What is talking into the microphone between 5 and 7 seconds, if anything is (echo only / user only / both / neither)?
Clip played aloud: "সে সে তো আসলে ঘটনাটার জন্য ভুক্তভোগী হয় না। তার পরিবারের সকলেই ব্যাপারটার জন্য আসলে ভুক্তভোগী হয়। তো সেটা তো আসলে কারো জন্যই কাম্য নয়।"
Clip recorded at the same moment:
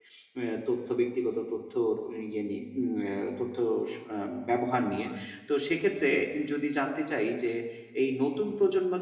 user only